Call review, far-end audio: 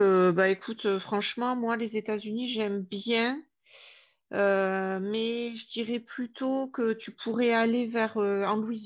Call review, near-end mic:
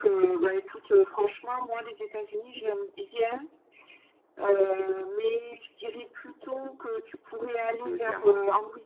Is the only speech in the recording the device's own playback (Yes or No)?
No